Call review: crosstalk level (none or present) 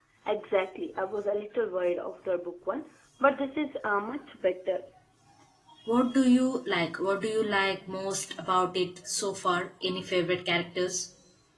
none